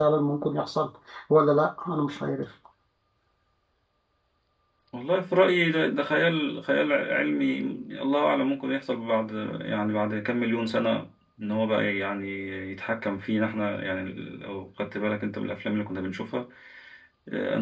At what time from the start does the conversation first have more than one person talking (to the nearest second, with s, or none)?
none